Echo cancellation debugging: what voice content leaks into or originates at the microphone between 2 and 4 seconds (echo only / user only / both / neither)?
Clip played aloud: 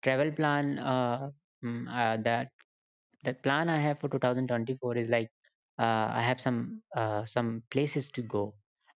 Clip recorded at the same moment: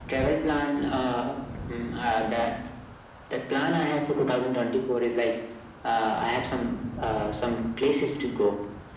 echo only